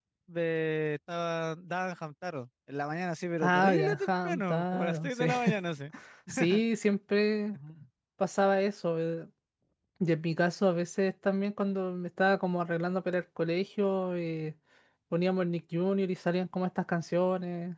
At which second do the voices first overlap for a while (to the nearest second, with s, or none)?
3 s